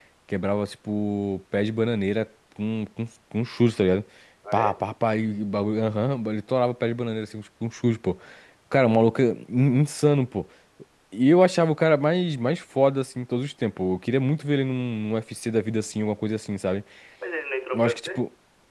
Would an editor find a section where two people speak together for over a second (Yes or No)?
No